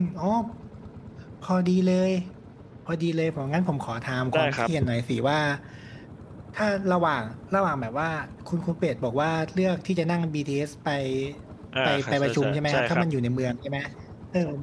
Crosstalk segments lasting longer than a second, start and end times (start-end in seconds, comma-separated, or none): 11.8-13.0